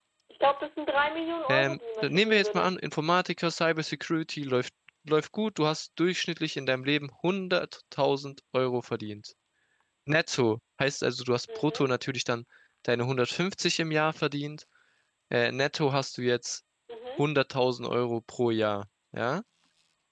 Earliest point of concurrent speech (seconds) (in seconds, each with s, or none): 1.5 s